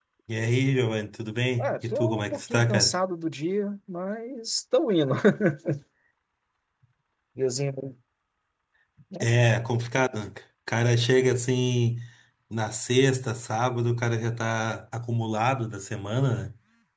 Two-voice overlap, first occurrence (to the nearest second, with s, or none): 2 s